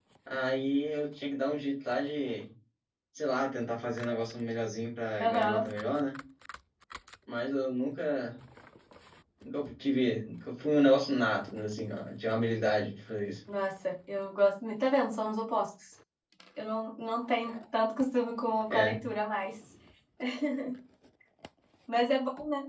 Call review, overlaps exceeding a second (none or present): none